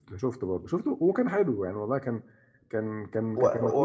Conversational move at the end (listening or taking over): taking over